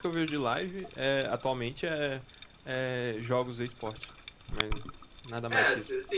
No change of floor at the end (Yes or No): No